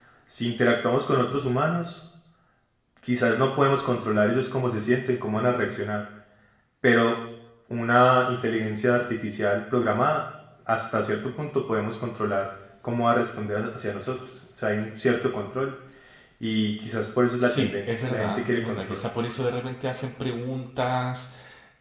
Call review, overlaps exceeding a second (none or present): present